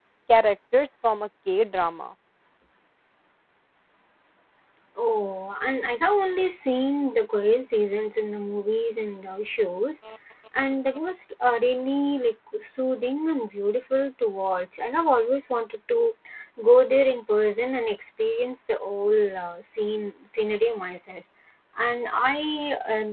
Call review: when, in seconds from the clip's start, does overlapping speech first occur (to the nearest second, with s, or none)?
none